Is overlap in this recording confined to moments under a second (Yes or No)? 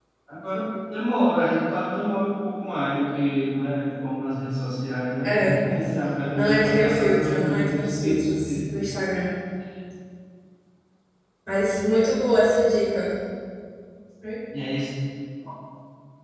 No